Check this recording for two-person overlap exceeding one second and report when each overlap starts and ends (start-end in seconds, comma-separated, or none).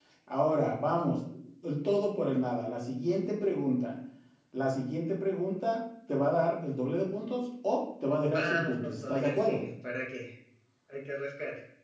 8.3-9.6